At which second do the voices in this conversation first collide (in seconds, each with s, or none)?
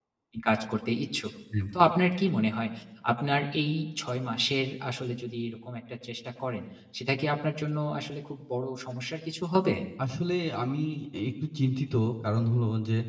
none